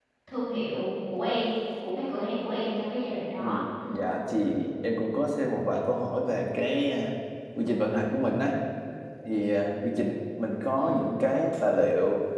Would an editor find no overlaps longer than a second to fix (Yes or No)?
Yes